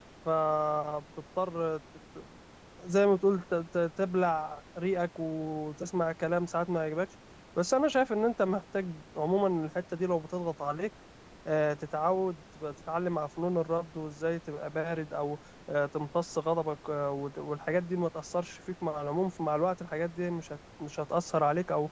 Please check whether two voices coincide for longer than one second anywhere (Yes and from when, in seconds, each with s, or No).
No